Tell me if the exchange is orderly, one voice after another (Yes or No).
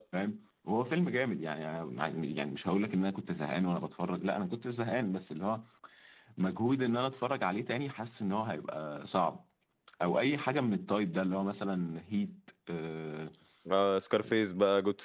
Yes